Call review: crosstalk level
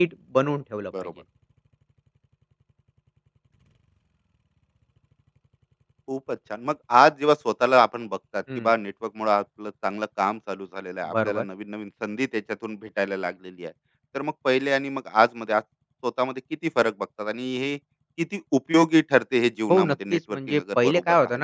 present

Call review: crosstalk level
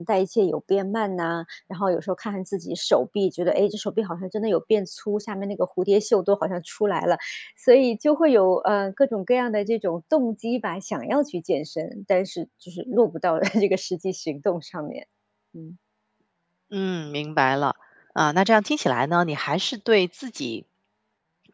none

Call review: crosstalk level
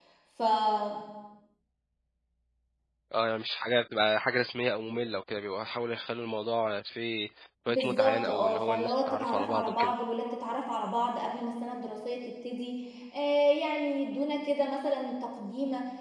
present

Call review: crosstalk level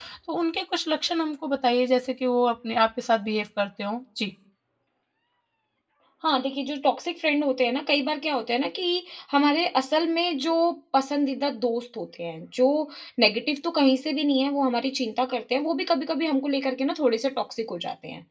none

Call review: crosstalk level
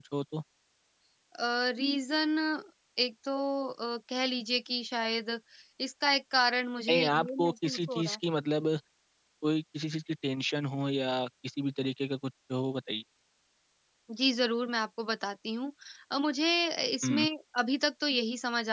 present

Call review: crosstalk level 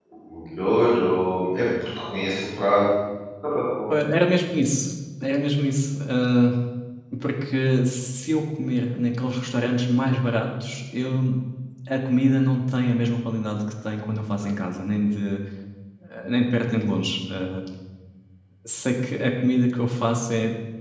none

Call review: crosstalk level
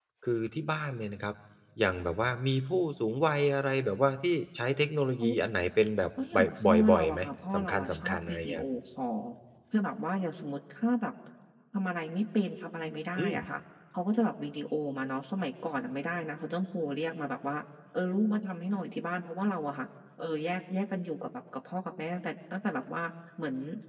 present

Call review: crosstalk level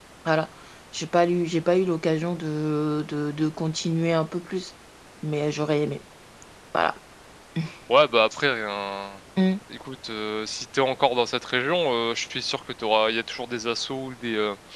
none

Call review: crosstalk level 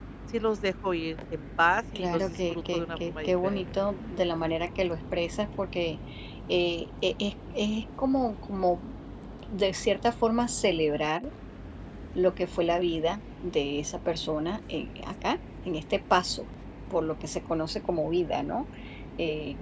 present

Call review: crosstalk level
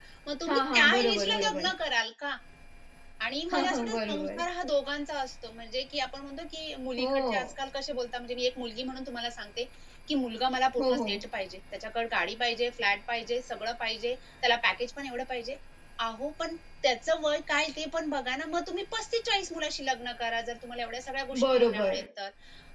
present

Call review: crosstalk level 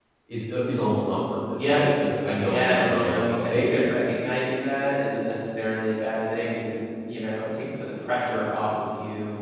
present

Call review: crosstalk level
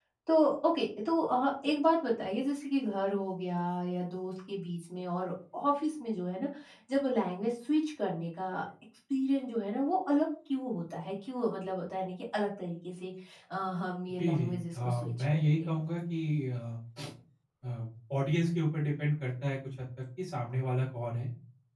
present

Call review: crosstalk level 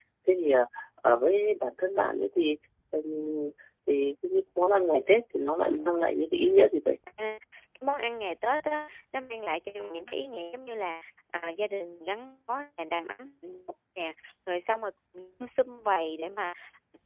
none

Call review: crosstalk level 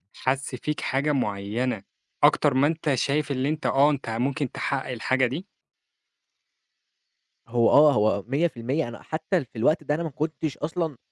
none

